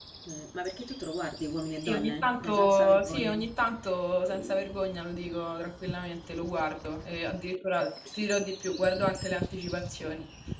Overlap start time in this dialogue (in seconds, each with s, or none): 1.9 s